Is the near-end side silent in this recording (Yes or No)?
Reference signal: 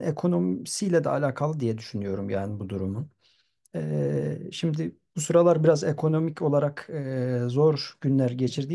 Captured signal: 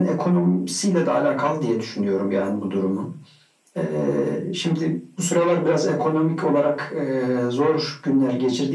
Yes